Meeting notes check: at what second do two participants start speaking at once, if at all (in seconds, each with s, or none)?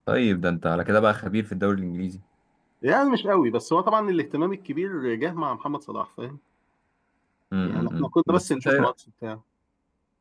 7.6 s